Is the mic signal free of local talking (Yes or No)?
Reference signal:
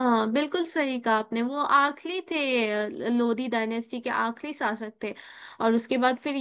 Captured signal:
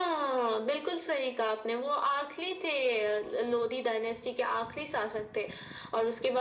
Yes